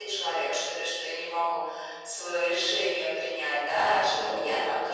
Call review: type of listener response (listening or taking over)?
listening